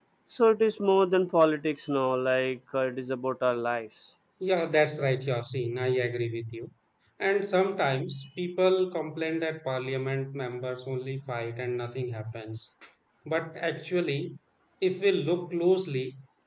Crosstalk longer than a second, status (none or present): none